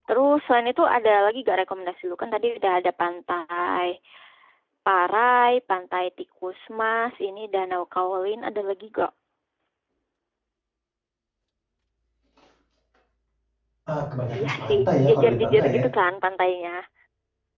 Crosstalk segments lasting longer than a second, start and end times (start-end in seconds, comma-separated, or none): 14.3-15.8